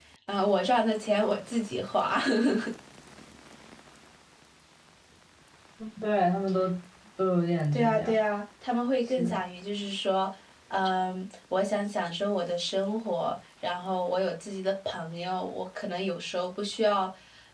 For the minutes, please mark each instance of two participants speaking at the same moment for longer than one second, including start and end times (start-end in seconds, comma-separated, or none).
none